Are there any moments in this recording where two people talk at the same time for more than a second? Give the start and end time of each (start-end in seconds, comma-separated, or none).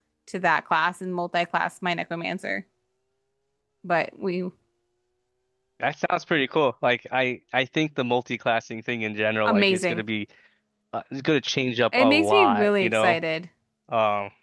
12.0-13.2